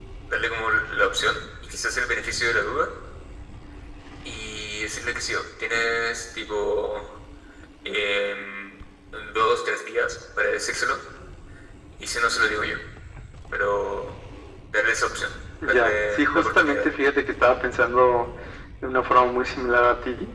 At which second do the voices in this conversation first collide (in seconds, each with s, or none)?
15.6 s